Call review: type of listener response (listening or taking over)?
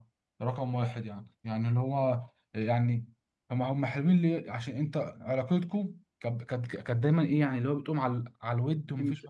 listening